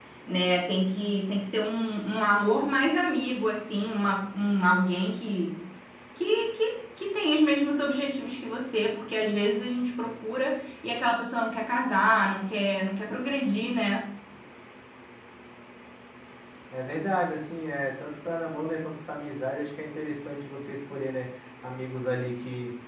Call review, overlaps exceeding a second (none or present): none